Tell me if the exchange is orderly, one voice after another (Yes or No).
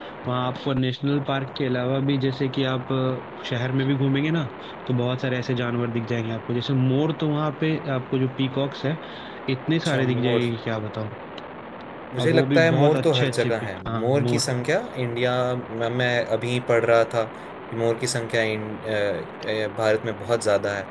No